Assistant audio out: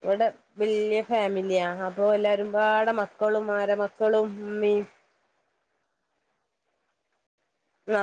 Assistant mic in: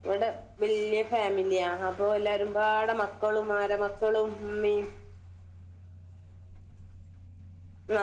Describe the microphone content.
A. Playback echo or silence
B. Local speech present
A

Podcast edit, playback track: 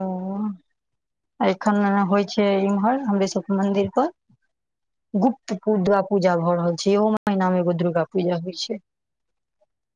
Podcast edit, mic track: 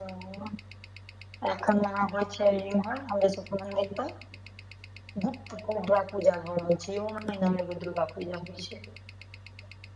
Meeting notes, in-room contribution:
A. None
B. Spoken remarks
A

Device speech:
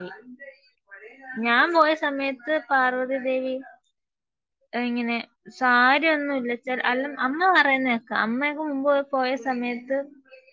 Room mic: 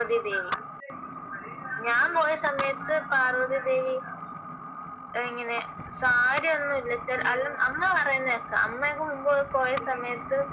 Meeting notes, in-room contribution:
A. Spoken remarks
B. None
B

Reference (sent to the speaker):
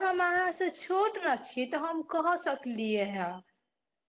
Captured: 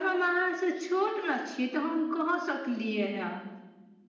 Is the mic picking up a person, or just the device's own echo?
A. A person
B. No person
B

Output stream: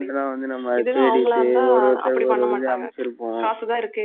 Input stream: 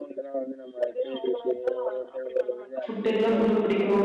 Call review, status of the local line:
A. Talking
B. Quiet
A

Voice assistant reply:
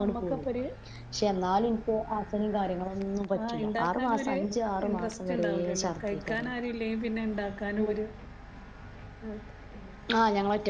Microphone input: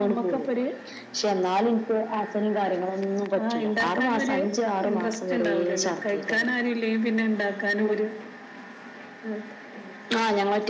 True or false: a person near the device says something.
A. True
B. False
B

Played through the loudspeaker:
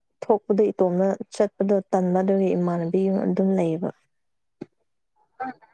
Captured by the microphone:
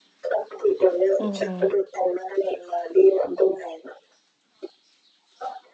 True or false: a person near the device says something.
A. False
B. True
B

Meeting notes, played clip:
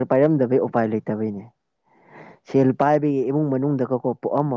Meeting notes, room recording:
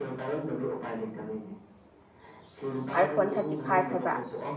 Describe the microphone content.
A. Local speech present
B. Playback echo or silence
A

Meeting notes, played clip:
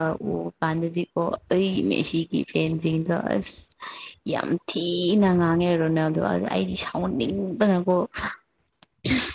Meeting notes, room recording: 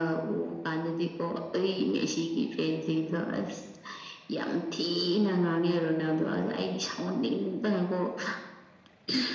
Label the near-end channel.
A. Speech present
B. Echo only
B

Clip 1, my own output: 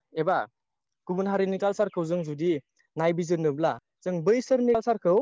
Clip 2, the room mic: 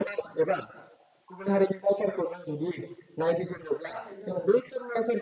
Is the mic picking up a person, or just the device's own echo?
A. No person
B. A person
B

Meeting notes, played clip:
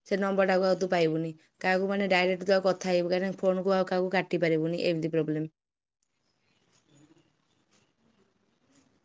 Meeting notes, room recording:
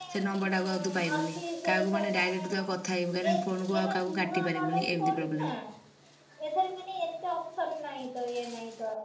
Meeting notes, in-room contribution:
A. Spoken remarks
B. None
A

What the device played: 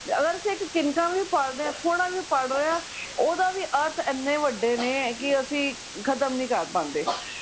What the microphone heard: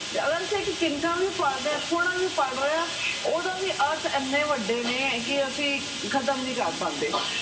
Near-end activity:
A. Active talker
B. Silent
B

